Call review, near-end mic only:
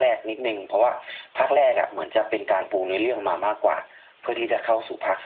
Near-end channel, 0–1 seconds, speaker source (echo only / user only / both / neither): echo only